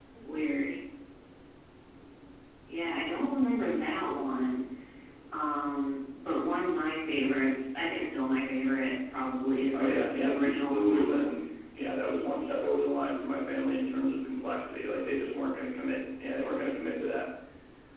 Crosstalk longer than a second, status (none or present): present